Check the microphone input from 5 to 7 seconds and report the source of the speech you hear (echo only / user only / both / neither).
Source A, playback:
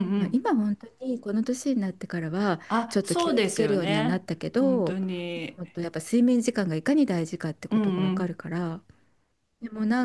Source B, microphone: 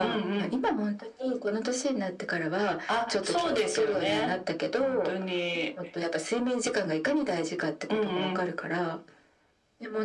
echo only